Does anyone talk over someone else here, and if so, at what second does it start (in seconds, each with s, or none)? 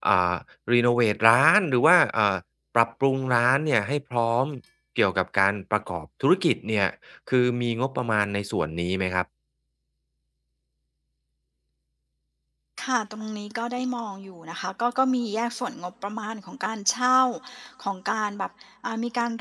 none